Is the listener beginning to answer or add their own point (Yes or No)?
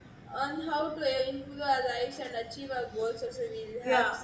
Yes